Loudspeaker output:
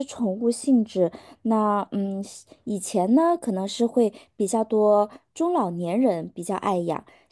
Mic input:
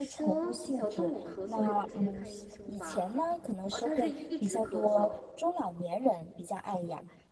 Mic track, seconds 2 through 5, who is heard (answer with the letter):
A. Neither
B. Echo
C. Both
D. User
C